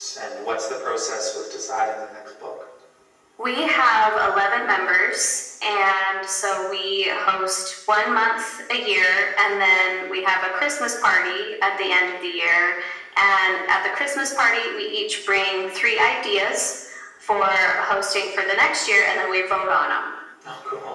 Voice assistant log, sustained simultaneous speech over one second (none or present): none